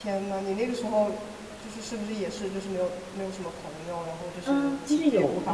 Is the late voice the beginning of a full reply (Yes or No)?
Yes